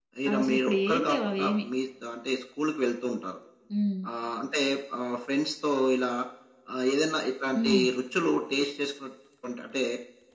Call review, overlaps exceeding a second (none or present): present